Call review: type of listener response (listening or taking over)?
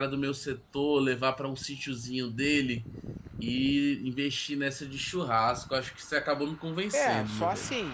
taking over